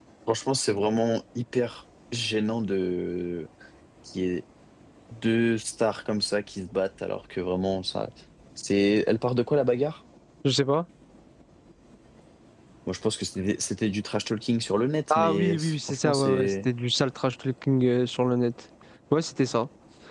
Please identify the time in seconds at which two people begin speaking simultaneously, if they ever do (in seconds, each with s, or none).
15.1 s